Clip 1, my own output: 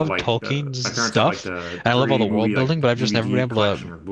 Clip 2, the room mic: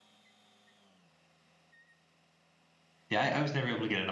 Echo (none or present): none